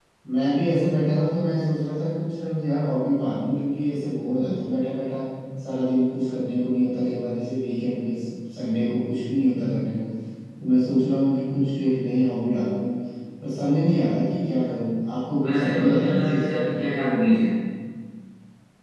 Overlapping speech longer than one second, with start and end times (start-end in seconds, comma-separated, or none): 15.4-16.7